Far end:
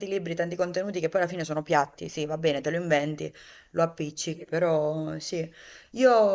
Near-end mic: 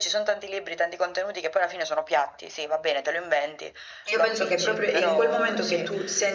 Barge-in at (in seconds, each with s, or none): 4.1 s